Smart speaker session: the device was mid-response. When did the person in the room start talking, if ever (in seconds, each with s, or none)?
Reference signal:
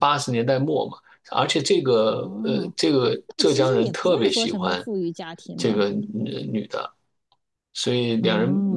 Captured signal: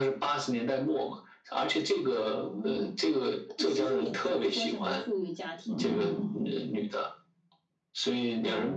5.6 s